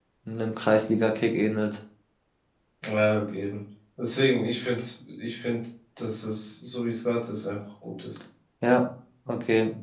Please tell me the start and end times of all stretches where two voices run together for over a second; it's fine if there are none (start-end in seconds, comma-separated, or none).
none